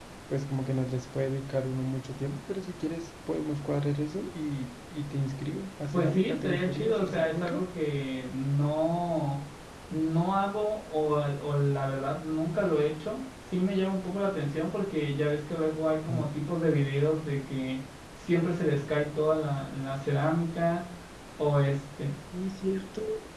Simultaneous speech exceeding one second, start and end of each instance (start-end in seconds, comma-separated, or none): 5.9-7.6